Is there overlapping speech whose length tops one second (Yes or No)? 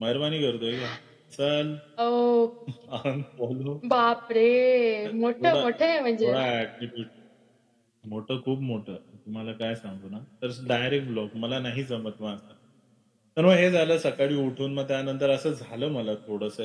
No